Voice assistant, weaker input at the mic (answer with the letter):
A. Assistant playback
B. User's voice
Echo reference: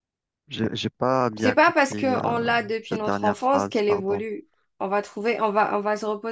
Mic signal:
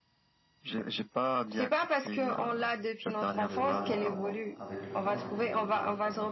B